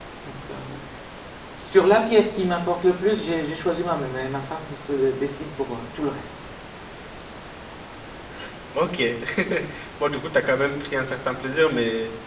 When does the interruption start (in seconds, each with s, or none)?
none